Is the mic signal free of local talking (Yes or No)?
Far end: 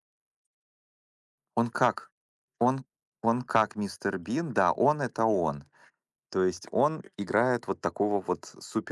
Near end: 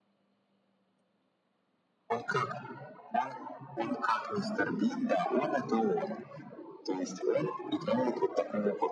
Yes